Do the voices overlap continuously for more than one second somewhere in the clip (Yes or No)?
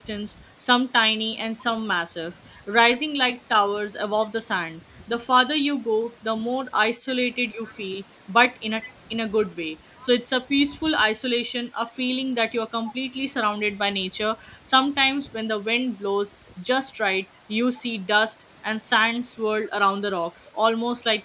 No